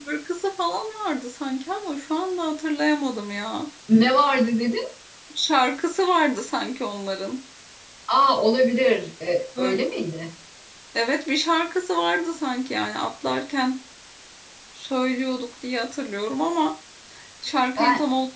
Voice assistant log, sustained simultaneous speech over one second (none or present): none